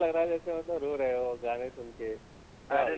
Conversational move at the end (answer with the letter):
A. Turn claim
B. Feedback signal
A